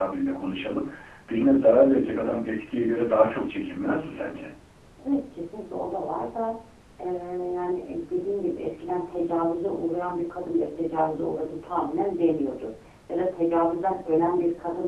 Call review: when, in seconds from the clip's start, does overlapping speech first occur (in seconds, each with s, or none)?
none